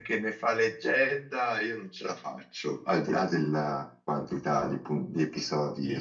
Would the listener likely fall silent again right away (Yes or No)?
No